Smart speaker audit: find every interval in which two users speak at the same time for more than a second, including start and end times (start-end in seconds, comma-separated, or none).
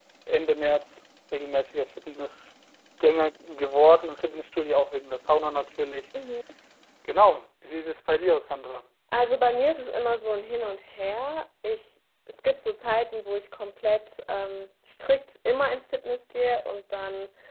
none